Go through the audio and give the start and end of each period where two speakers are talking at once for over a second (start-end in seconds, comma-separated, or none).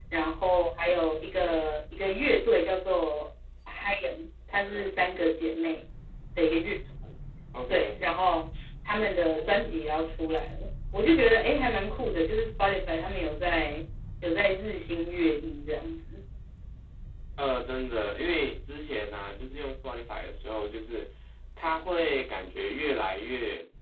none